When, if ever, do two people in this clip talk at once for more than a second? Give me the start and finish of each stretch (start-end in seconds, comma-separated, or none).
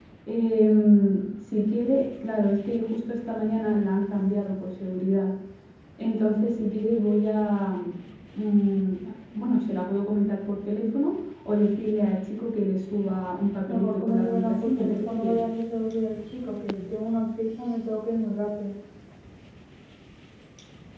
13.7-15.4